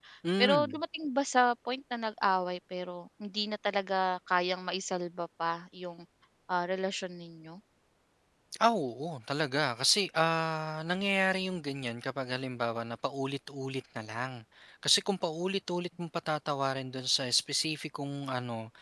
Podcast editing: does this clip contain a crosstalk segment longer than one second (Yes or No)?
No